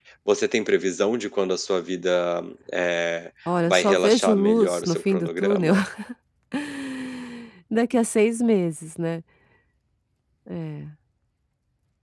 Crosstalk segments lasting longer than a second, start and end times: 3.7-5.7

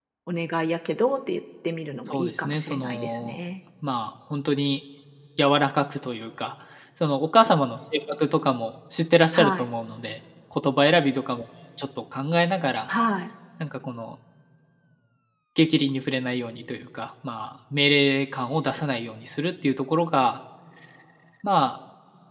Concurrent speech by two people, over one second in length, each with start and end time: 2.1-3.4

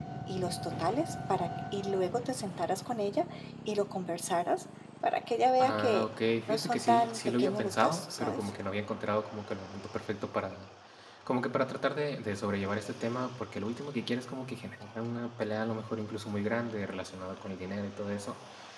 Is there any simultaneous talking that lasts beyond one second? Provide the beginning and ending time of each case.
6.5-8.5

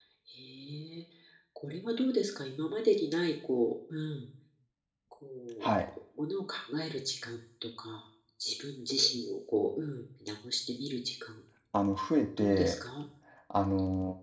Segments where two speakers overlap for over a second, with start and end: none

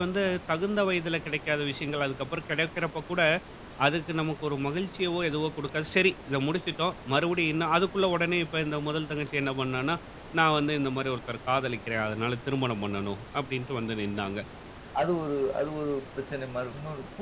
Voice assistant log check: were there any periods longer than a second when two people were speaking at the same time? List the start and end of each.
none

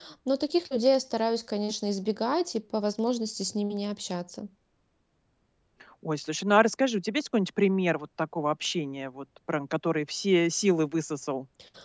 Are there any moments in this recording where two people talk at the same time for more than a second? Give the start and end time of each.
none

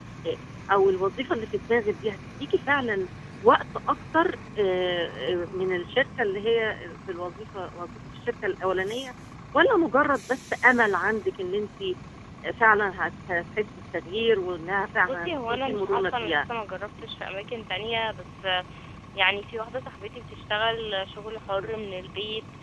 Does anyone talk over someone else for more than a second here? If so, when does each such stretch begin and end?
15.0-16.4

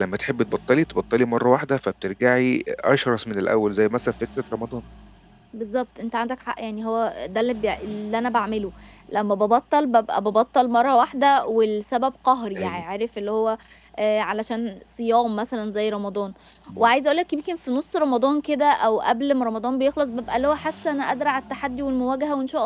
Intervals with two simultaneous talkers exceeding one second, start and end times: none

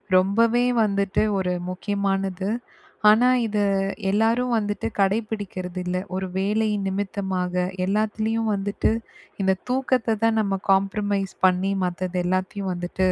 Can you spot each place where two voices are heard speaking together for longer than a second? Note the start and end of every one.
none

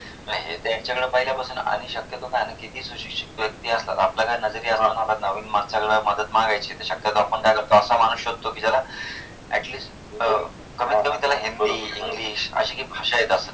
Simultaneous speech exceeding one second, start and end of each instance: 10.8-12.2

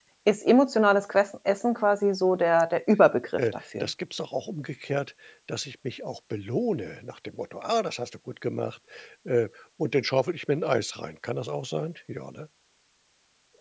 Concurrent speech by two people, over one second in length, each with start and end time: none

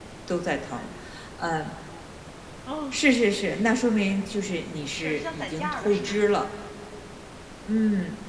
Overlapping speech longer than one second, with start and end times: 4.9-6.1

